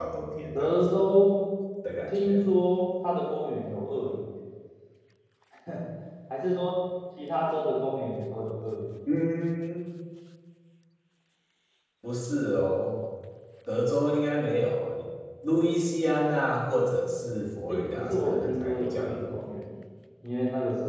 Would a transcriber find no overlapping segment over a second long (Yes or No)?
No